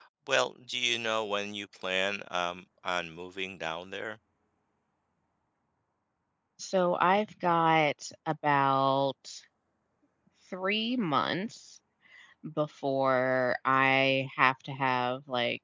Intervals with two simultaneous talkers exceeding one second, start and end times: none

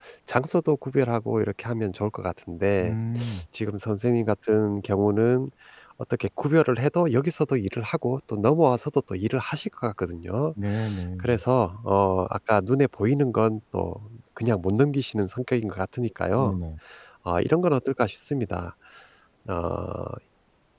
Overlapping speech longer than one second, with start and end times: none

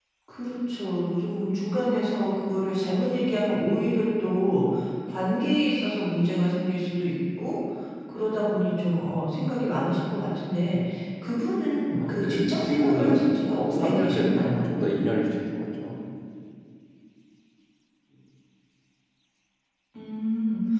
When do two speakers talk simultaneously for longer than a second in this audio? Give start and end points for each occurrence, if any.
12.0-14.5

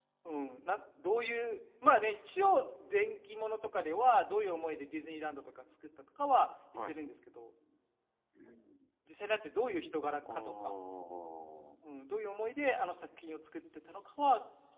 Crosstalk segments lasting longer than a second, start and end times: none

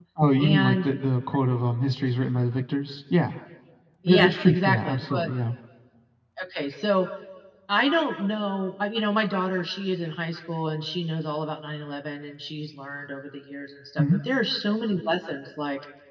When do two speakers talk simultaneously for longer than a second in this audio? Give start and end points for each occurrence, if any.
4.1-5.3

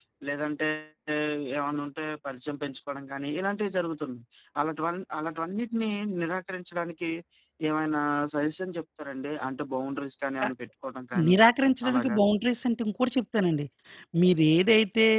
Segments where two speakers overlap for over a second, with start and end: none

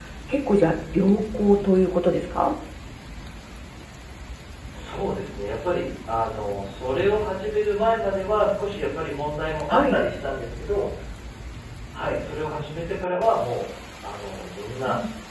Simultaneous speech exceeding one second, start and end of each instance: none

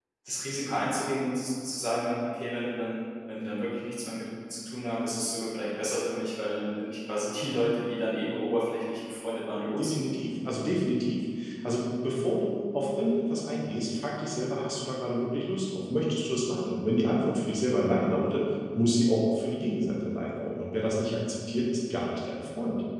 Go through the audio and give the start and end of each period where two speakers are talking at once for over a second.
none

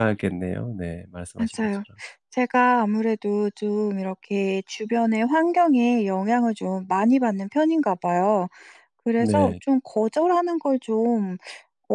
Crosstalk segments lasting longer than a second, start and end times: none

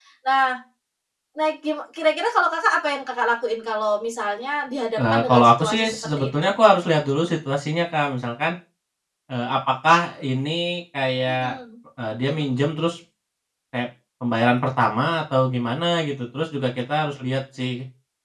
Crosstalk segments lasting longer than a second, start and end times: 5.0-6.5

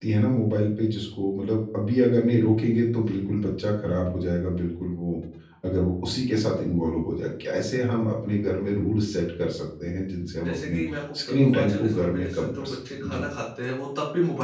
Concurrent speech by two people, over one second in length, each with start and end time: 11.3-13.2

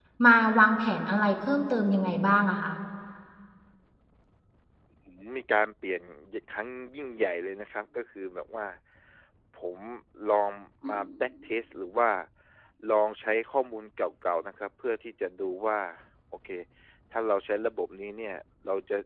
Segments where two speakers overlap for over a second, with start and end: none

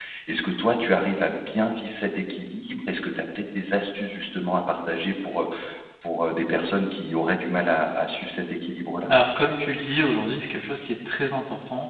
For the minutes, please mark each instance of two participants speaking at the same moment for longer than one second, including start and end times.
none

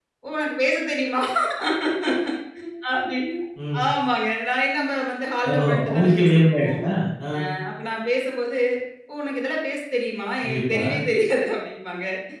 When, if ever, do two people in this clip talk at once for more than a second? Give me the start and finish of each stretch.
5.5-6.8

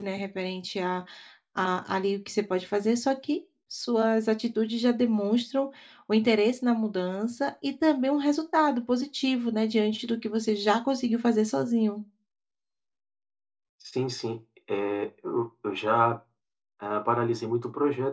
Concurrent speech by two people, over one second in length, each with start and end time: none

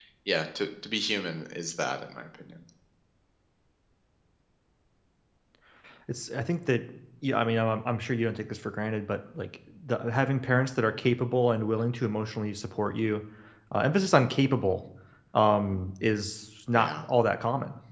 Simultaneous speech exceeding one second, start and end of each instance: none

